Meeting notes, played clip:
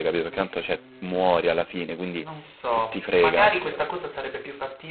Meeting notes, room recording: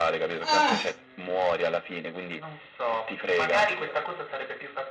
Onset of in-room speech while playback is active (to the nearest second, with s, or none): 0 s